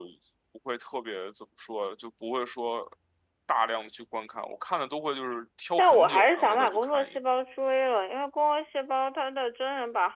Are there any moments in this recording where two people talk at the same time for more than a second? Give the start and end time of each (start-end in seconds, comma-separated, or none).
5.8-7.2